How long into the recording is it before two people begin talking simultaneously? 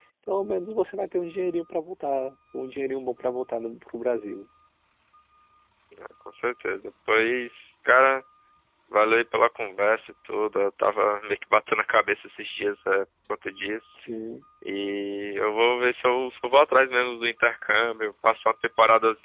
none

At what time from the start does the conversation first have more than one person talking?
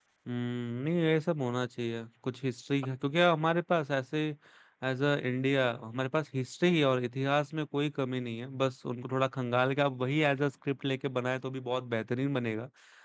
none

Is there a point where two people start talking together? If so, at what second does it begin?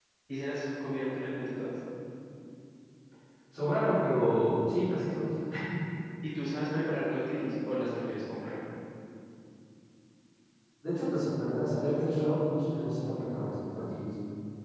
none

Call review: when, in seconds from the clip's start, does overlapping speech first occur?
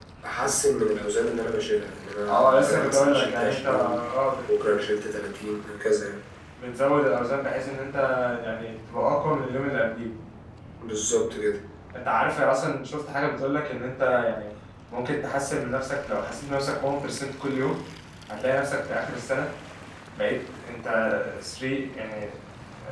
2.3 s

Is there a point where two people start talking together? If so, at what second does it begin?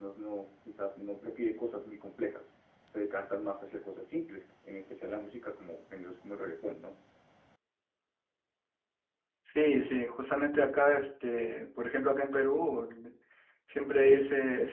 none

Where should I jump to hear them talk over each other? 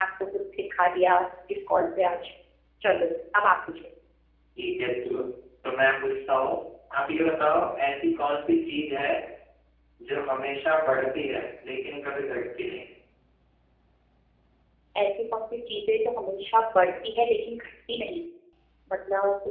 none

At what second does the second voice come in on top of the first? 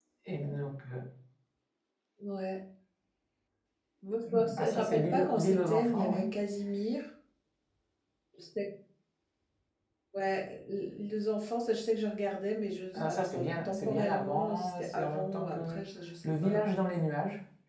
4.3 s

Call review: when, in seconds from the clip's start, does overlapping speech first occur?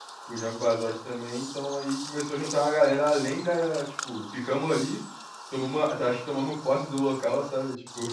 none

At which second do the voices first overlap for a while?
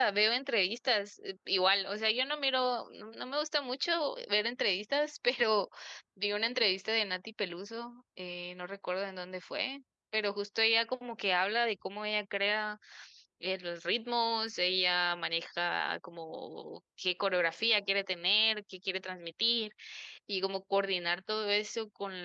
none

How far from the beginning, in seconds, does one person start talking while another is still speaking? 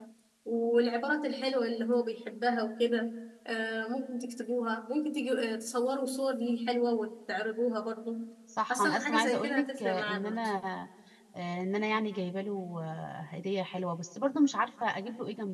8.7 s

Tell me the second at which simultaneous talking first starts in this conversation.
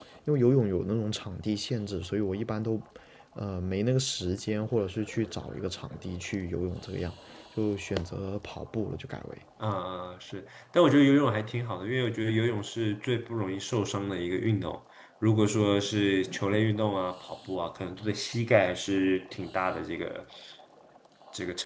none

